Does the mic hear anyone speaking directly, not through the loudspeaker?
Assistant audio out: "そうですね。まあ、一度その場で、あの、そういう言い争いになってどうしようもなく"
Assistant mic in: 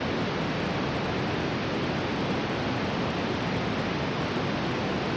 No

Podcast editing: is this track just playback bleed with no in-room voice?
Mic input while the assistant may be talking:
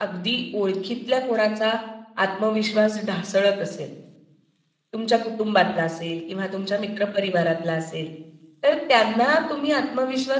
No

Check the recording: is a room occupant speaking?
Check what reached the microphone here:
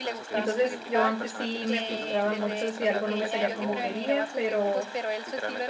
Yes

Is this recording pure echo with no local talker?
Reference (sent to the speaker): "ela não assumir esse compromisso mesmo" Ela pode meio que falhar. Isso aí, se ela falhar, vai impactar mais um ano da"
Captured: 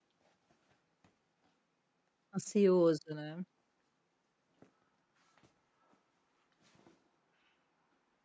No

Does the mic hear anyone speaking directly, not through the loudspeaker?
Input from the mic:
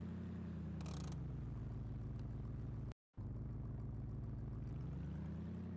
No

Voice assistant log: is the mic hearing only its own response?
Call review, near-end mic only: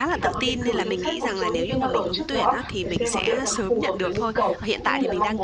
No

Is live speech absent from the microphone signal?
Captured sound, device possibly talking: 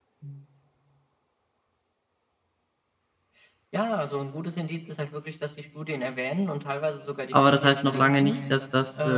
No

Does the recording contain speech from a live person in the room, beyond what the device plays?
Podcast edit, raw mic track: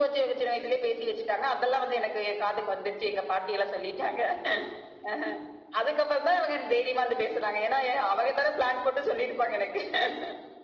No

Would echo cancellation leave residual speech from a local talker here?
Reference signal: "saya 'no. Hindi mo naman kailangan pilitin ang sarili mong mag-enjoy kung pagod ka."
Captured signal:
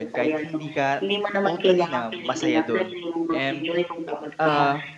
Yes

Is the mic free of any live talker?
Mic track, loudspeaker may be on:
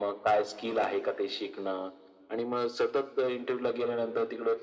Yes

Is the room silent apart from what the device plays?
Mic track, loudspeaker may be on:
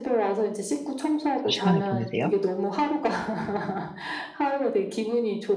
No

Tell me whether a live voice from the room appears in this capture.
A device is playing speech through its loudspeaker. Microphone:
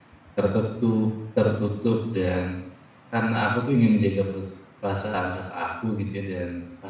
Yes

